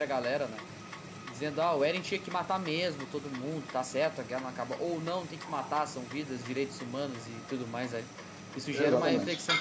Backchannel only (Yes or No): Yes